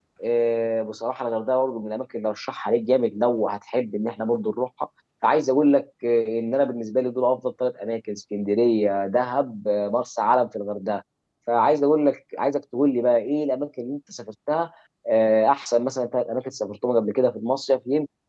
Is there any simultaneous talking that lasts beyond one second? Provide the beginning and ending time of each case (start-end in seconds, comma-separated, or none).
none